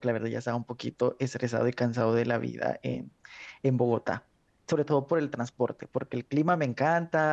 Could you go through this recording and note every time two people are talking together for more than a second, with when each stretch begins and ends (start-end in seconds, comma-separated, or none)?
none